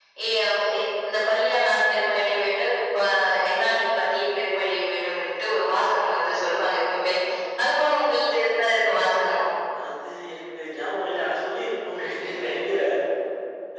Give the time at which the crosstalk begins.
none

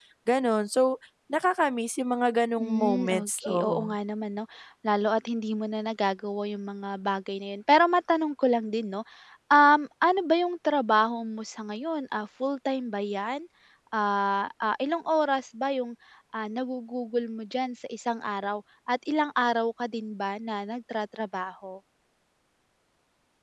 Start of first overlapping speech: 2.6 s

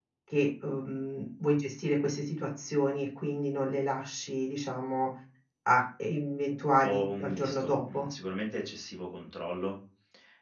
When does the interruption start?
6.7 s

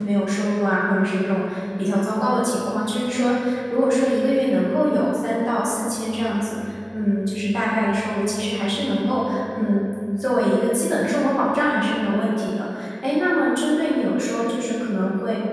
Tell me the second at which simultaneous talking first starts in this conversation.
none

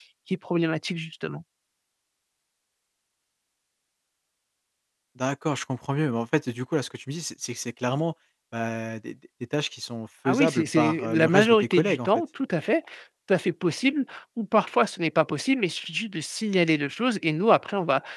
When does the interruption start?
10.2 s

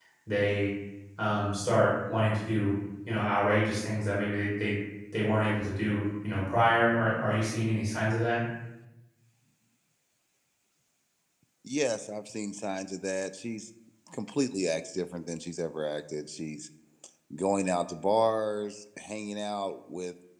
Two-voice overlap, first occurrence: none

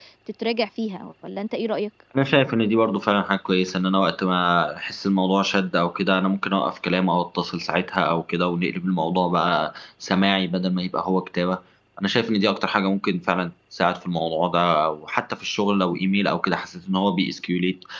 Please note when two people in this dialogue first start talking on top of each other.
none

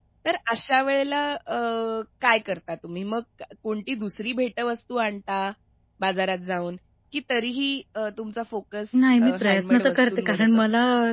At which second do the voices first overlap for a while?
9.2 s

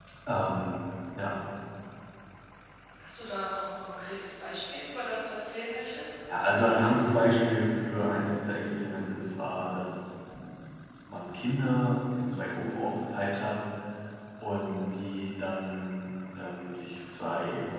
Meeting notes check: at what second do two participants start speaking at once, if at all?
none

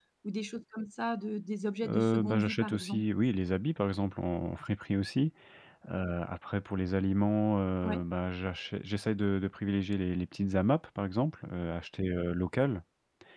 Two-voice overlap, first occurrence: 1.8 s

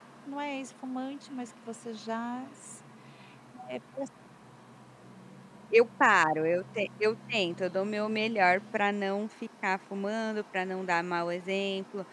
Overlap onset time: none

